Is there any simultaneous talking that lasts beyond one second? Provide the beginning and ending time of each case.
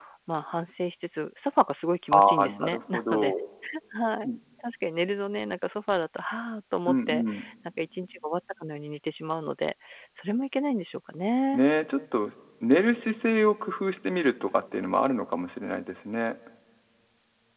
2.1-3.3

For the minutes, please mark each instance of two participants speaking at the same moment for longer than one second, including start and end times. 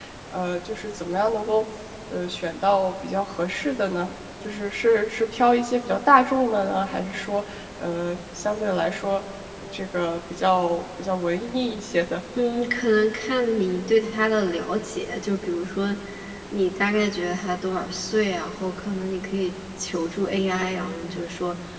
none

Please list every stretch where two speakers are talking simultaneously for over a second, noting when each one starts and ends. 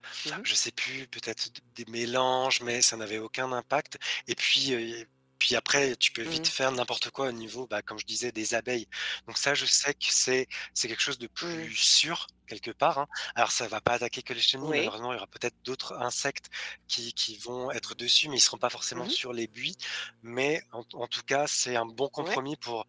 none

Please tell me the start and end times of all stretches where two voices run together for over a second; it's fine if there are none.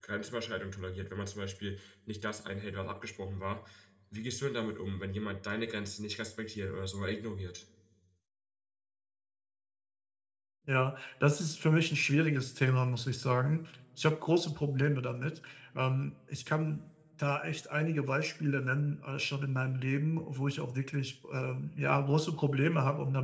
none

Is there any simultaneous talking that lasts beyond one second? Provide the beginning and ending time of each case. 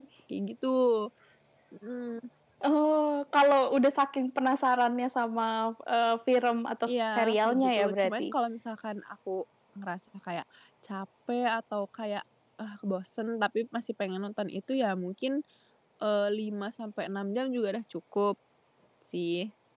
6.9-8.3

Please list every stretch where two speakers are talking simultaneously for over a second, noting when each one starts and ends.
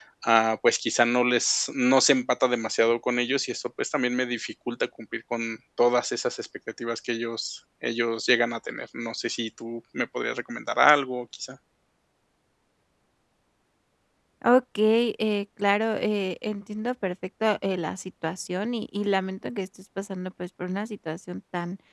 none

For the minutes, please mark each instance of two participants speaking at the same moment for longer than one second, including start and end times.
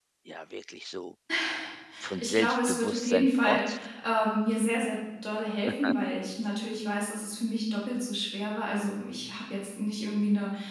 2.2-3.6

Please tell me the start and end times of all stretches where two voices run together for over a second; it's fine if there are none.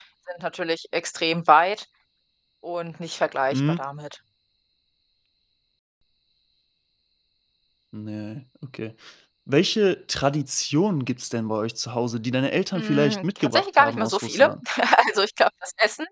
12.8-14.5

